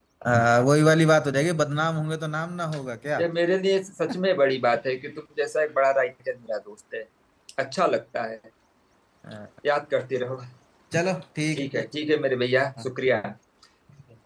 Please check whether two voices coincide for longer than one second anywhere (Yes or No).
No